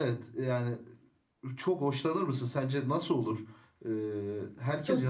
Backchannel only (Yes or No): No